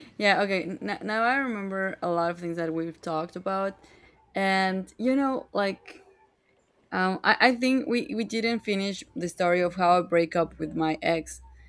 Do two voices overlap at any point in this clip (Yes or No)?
No